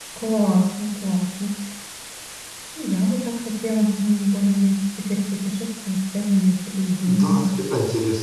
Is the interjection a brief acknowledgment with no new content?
No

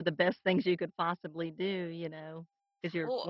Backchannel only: Yes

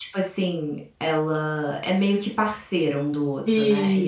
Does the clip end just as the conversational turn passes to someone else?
No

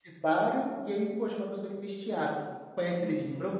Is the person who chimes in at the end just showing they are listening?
Yes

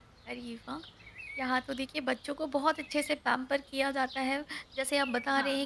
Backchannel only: Yes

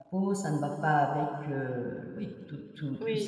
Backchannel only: No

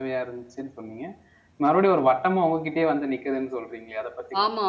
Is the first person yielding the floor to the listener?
Yes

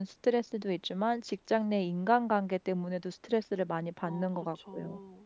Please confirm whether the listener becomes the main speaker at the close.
Yes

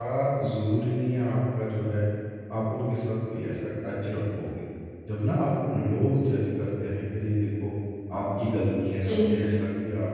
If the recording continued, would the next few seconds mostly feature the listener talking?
No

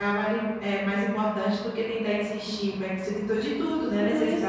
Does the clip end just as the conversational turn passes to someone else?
Yes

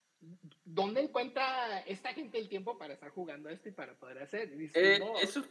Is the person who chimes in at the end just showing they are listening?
No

